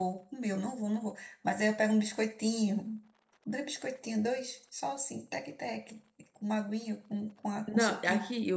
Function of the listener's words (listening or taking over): taking over